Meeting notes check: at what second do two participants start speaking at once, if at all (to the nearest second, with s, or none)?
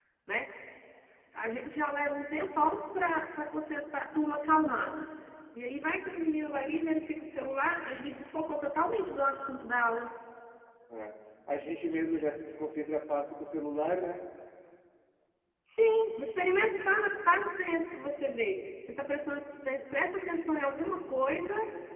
none